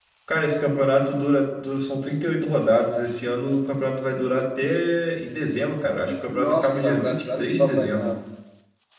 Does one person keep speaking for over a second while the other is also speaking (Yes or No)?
Yes